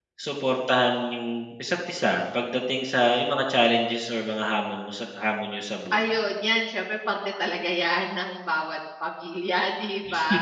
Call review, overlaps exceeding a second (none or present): none